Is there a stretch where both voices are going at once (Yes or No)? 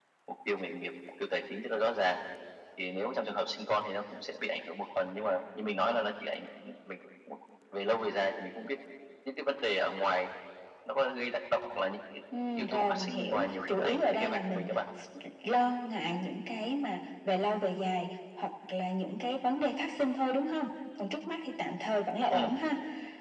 Yes